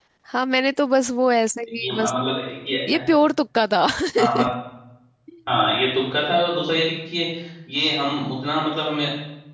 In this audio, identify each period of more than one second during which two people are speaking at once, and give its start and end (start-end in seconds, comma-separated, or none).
none